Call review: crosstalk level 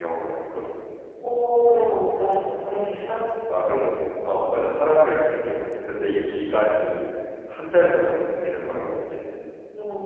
none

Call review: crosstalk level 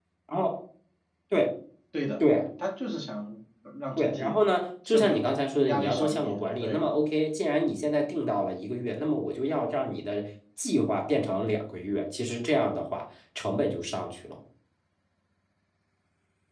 present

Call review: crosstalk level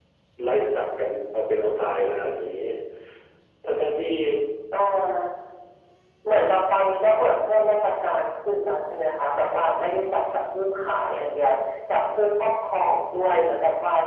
none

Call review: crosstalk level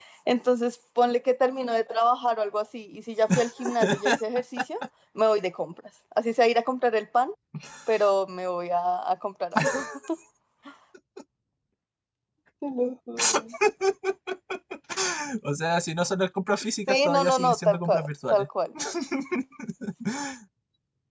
present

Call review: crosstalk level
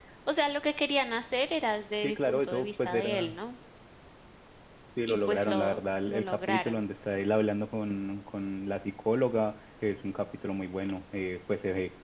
present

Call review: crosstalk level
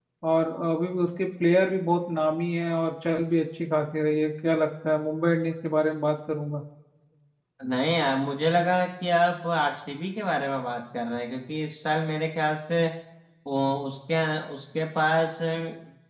none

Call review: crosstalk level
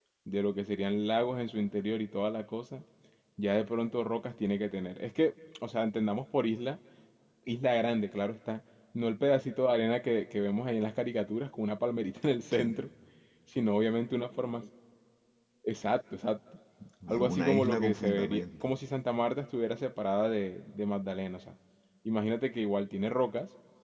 present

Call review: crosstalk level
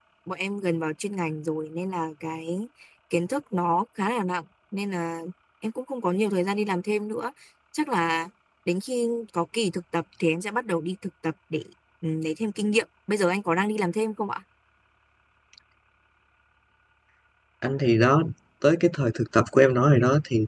none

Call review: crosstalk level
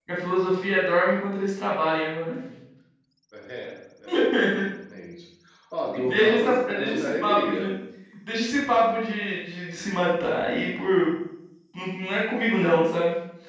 present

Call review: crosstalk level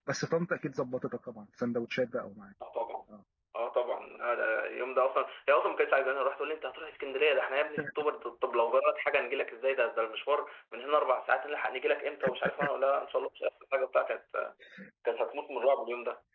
none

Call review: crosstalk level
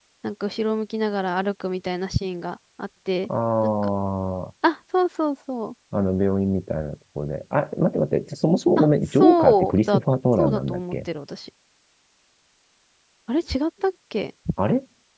present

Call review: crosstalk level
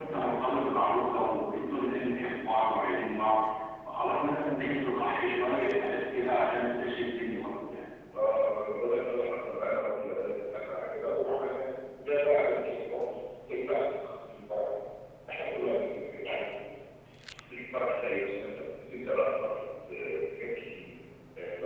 none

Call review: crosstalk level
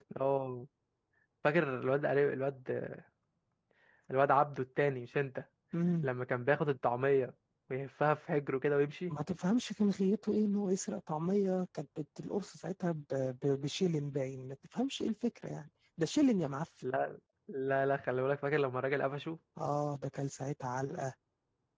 none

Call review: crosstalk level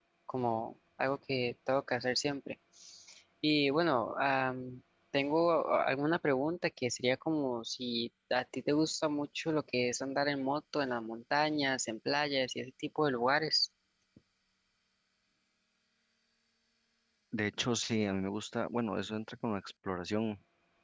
none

